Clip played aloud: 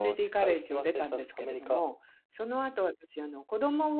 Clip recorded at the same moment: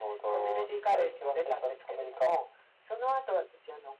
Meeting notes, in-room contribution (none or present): none